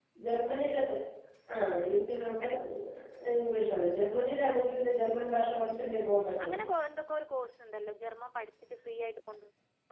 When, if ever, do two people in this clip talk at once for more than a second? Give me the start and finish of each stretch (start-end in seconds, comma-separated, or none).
none